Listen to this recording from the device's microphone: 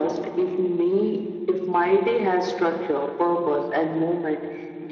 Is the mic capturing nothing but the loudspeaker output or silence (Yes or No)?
Yes